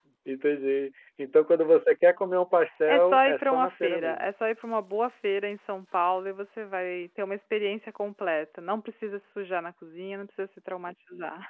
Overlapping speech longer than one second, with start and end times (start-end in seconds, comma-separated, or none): 2.9-4.3